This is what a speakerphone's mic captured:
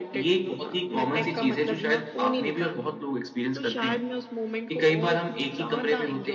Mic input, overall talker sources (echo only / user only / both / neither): echo only